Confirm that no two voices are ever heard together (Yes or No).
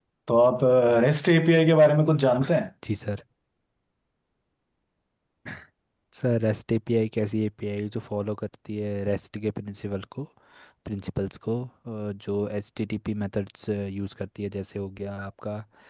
Yes